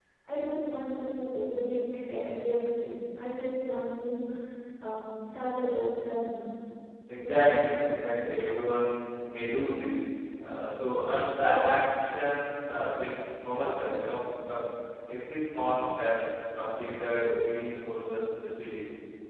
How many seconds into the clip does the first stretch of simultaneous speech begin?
7.2 s

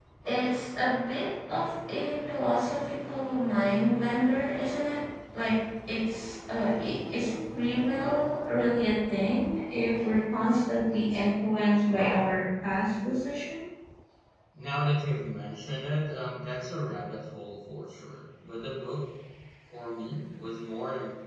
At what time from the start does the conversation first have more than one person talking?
none

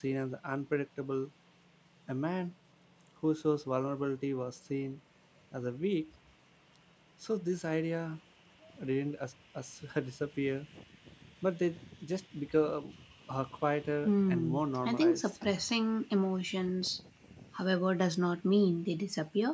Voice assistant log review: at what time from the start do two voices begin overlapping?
14.0 s

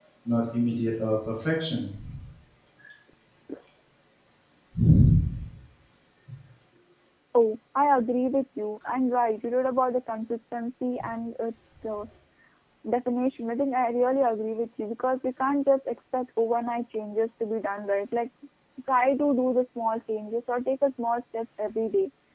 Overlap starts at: none

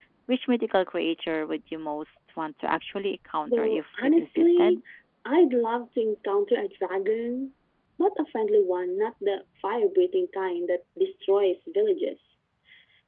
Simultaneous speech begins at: 3.5 s

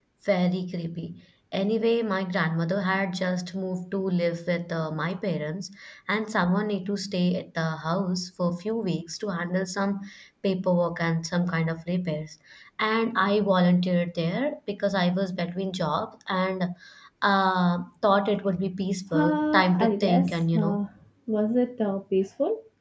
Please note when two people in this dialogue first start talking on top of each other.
19.1 s

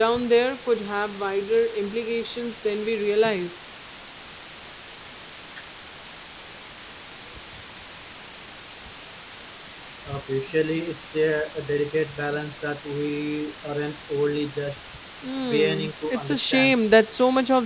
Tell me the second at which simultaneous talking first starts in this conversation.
15.5 s

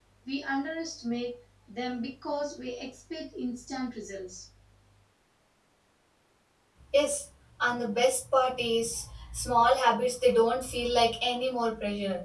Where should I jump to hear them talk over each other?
none

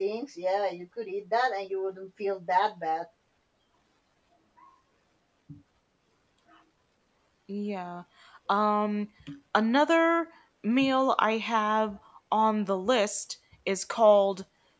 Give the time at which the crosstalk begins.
none

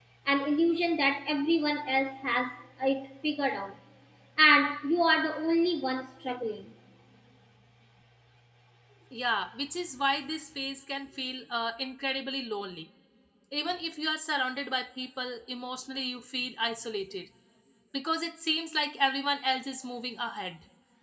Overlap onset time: none

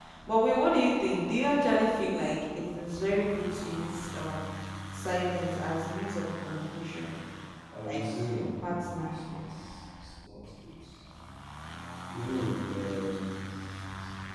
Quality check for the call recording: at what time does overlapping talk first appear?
7.8 s

